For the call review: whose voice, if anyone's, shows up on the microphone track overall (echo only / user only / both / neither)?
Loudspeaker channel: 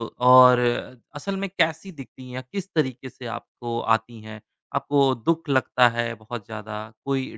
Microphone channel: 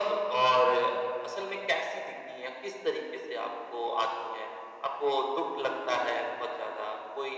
echo only